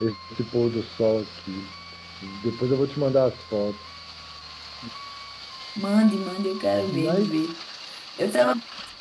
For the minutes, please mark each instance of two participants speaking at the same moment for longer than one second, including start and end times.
none

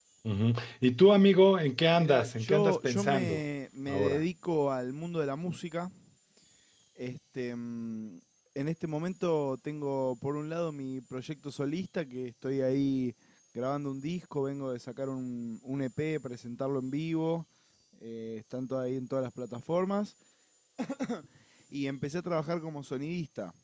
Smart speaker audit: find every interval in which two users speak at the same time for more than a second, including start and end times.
1.9-3.4

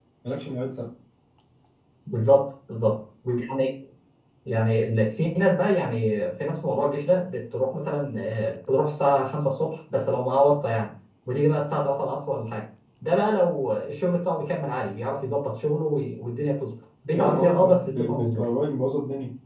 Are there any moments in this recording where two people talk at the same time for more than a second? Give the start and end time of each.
17.1-18.4

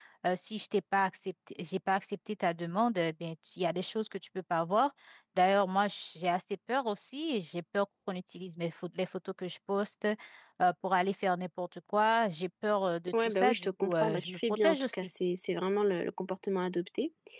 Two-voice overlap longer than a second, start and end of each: 13.2-15.1

